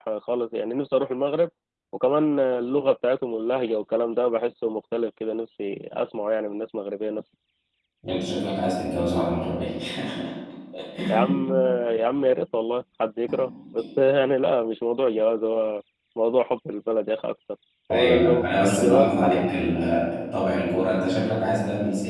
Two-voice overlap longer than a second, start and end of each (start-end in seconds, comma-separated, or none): 17.9-19.6